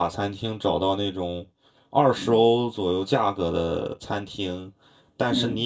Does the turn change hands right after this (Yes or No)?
No